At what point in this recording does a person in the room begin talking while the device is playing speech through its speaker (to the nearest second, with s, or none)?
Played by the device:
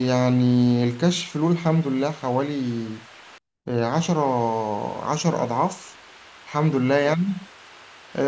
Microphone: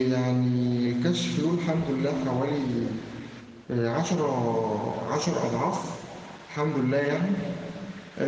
none